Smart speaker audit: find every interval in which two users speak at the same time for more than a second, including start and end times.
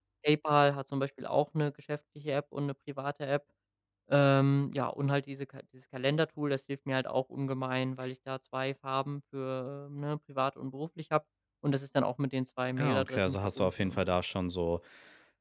12.8-14.0

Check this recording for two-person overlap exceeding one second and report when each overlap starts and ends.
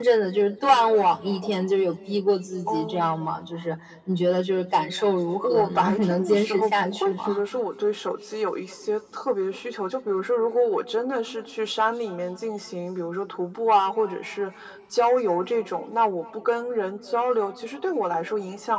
5.4-7.2

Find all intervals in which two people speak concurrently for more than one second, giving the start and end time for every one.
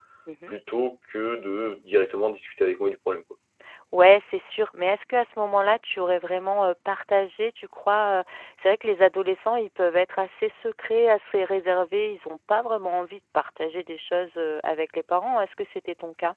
none

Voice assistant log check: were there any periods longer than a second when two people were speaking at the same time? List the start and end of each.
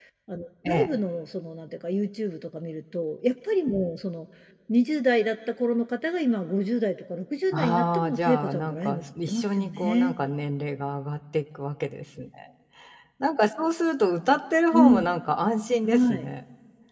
7.5-10.1

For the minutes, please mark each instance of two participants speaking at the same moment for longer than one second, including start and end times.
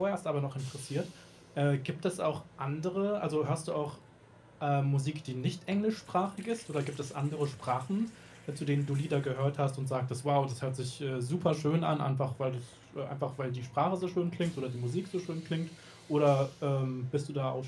none

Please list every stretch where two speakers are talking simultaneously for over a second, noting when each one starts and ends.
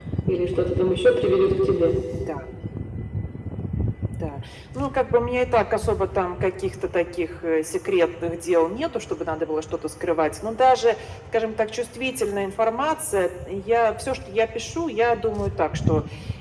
none

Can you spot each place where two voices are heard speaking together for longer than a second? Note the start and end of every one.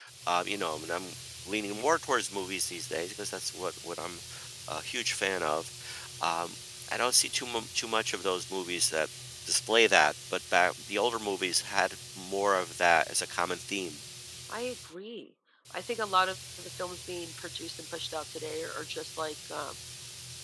none

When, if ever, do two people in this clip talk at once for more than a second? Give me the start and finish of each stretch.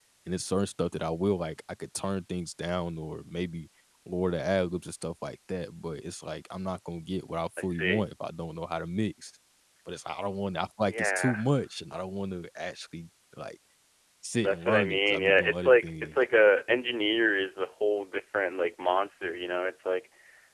14.4-16.1

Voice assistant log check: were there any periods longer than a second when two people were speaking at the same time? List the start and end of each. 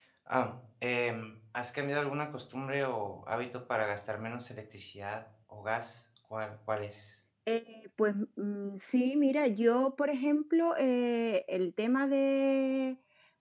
none

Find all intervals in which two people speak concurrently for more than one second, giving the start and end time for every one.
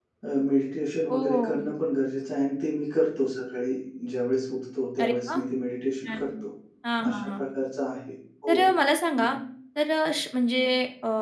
none

